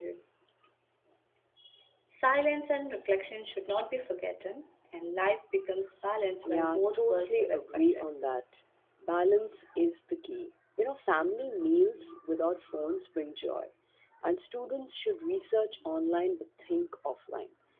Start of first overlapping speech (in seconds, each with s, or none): 6.4 s